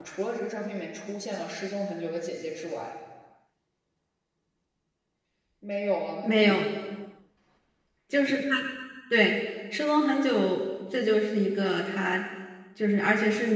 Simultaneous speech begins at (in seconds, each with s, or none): none